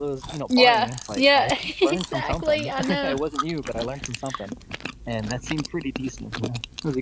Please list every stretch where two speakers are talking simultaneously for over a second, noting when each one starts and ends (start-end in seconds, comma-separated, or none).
0.6-3.2